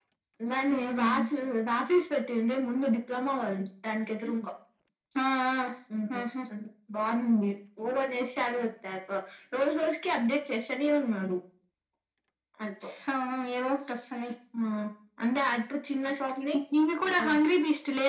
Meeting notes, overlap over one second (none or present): none